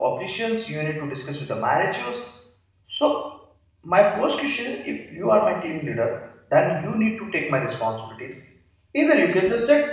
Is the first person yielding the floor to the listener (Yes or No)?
No